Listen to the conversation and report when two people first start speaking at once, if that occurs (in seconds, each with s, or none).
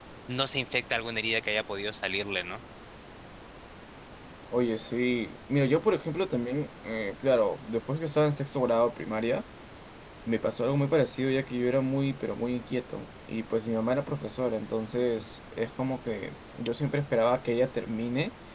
none